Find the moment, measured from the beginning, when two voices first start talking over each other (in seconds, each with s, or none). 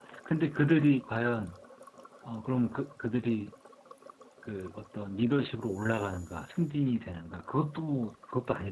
none